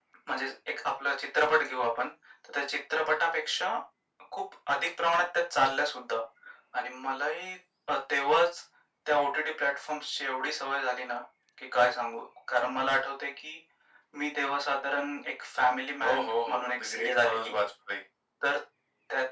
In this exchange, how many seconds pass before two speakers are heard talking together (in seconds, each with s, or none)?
16.0 s